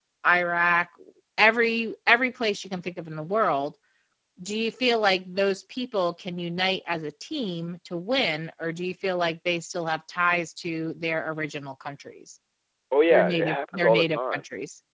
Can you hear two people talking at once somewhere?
Yes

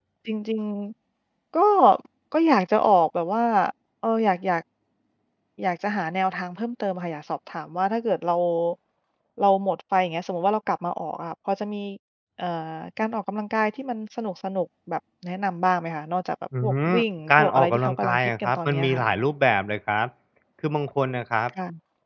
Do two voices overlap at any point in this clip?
Yes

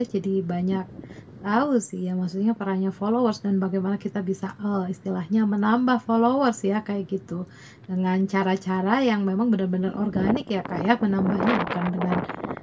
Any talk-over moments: No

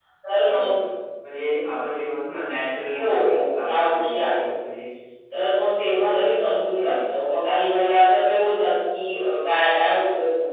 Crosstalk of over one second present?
Yes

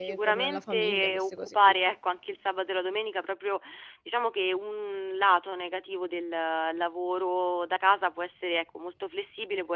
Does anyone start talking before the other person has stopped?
Yes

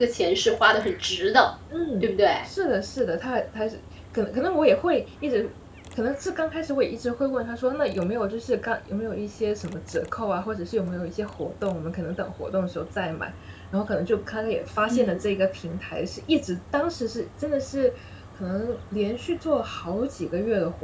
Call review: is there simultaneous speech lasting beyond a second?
No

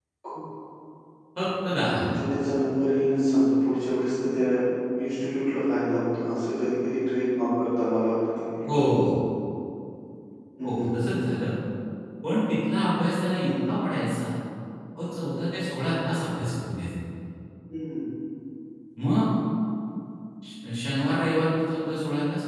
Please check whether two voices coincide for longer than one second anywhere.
No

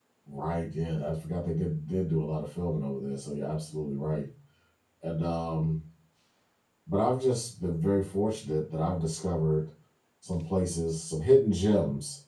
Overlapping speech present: No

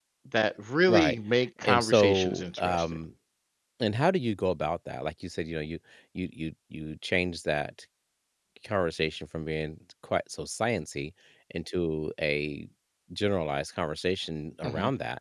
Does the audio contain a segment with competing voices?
Yes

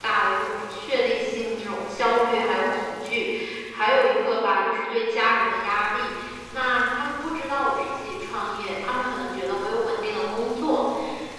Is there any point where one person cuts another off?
No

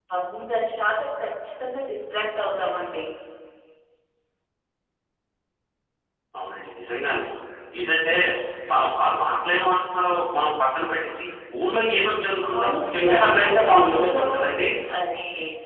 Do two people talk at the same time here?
Yes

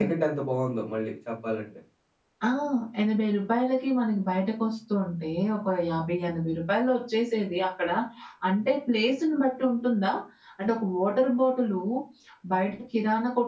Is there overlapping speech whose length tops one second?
No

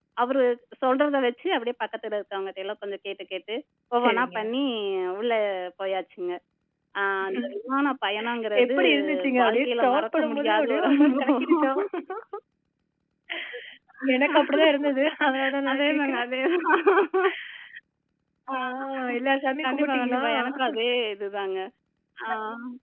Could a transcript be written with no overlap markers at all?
No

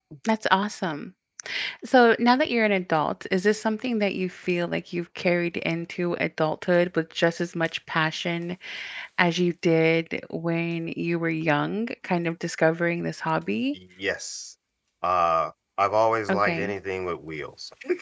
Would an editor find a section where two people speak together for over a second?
No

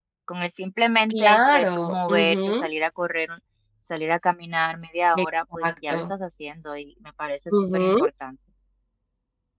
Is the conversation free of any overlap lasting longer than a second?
No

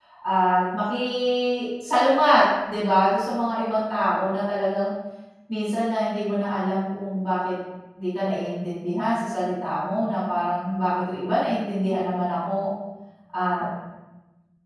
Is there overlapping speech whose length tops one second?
No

